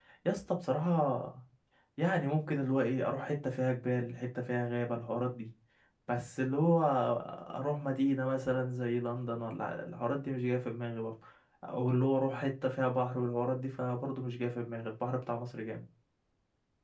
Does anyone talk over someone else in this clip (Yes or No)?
No